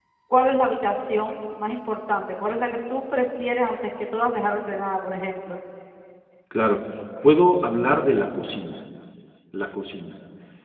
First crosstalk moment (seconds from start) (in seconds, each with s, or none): none